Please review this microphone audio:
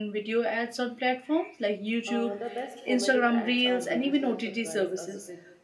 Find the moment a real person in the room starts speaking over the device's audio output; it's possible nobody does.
2.0 s

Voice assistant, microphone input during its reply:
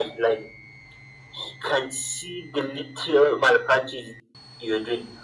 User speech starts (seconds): none

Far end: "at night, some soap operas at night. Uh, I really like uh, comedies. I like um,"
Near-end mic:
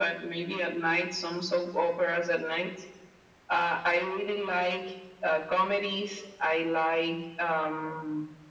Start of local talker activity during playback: none

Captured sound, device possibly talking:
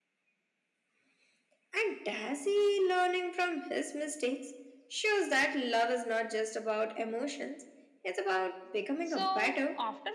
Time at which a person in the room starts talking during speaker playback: 9.0 s

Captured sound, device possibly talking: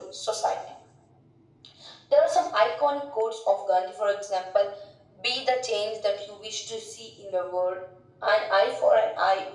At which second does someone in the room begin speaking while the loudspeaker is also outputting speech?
none

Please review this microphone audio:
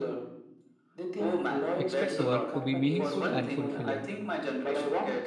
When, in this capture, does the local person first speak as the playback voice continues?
1.7 s

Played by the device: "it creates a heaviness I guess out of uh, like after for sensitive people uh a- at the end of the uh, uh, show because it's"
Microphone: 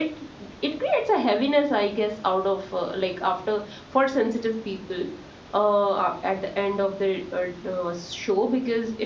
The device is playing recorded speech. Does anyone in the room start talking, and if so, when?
none

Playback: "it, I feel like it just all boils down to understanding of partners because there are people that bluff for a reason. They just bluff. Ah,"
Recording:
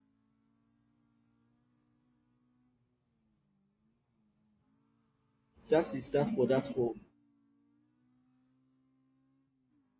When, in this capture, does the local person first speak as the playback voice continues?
5.7 s

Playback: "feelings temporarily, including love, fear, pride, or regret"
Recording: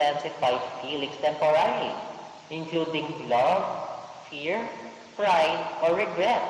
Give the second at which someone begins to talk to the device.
none

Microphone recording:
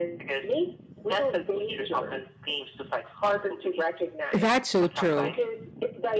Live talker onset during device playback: 4.3 s

